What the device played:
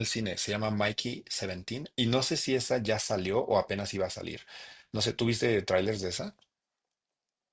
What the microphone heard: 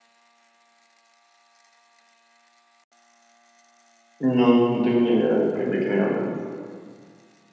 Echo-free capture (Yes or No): Yes